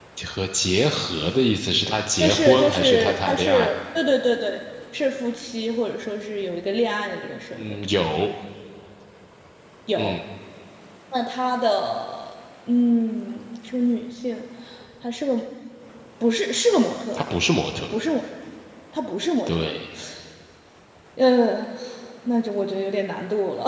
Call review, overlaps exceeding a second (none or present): present